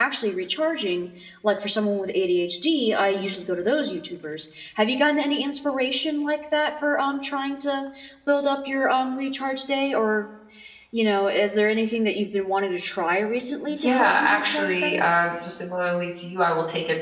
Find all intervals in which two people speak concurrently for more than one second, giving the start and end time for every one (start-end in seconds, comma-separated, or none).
13.8-15.0